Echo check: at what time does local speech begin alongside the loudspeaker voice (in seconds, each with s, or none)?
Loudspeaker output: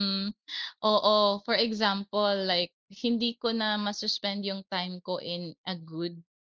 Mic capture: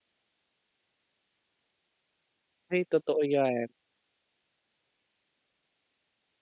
2.7 s